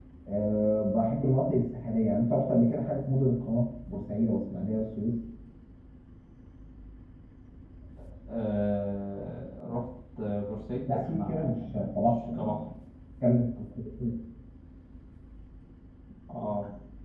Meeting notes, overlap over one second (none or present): present